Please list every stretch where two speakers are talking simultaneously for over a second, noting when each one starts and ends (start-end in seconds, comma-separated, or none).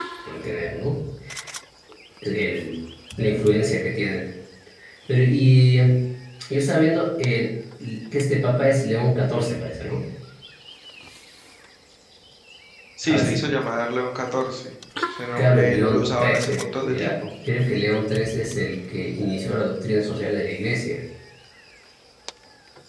15.3-17.1